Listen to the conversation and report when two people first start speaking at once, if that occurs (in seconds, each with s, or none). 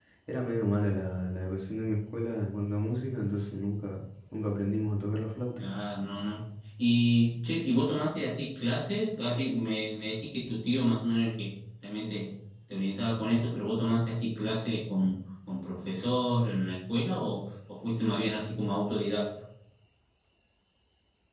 none